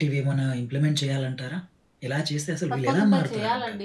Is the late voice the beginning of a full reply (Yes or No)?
Yes